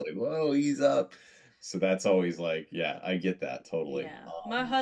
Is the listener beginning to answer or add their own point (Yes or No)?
Yes